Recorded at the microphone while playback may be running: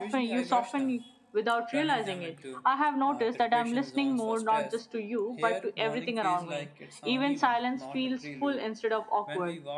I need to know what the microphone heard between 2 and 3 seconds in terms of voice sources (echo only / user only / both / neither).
both